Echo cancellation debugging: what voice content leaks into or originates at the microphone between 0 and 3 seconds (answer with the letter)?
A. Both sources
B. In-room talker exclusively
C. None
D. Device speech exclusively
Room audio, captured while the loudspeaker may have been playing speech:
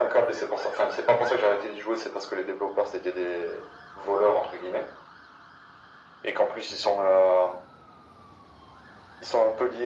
D